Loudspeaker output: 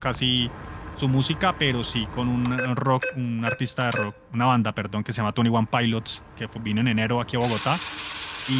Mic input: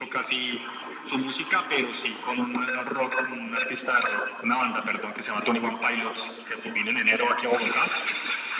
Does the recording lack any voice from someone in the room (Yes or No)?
Yes